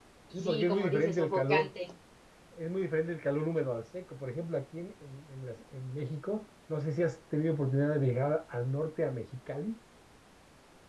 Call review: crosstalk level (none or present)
present